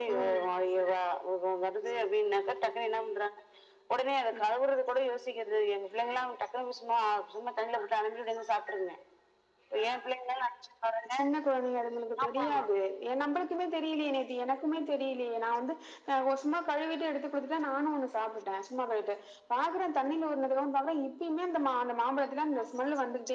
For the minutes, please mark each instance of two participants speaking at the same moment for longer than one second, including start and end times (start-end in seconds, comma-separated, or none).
none